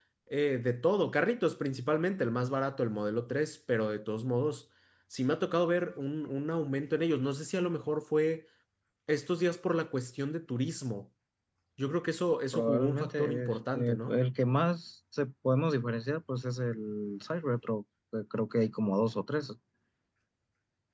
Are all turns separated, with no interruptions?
No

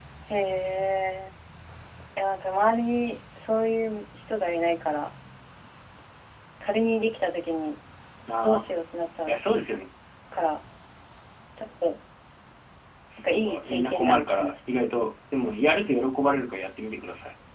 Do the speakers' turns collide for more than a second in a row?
Yes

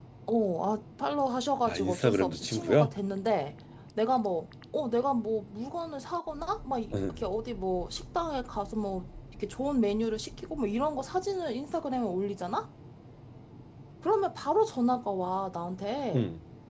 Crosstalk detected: Yes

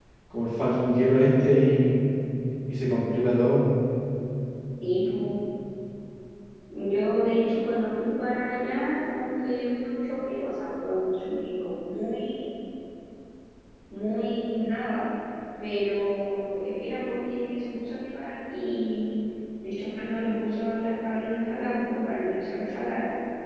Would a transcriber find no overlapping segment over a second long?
Yes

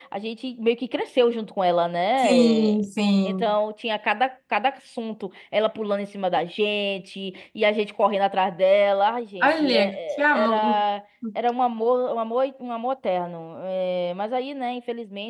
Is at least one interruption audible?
Yes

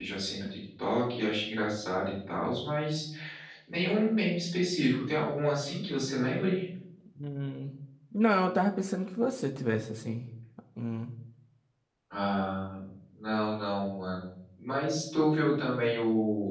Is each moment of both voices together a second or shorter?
Yes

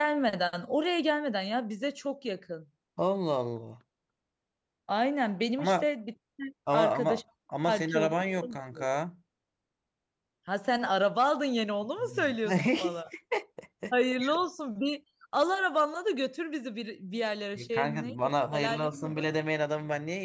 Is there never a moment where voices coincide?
No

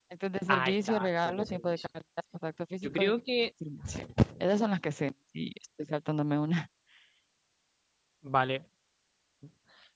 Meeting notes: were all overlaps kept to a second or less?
No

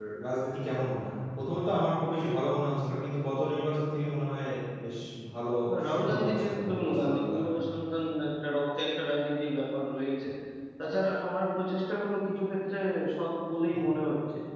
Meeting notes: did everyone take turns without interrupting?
No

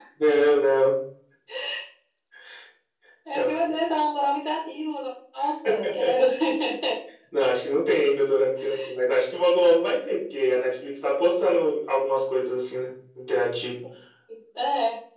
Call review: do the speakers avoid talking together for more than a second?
Yes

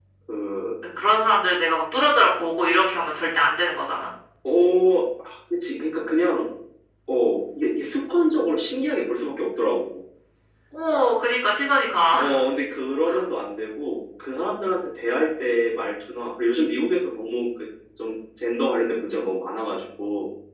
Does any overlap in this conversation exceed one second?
No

